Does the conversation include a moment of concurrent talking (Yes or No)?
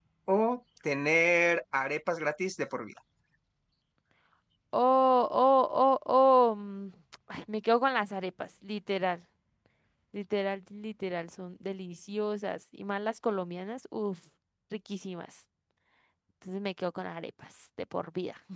No